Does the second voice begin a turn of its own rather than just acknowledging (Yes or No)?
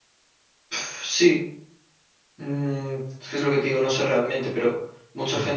No